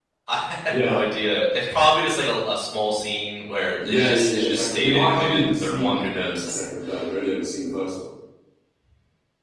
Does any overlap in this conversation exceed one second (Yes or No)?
Yes